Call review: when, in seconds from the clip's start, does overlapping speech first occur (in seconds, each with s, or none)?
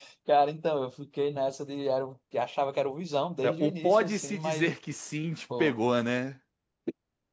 3.4 s